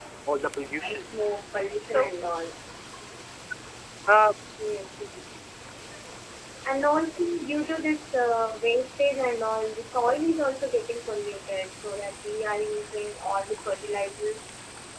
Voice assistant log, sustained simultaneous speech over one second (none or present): none